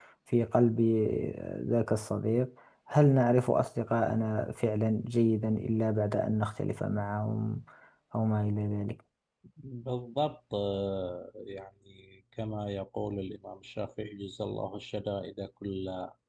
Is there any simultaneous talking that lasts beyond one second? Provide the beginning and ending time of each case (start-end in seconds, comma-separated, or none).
none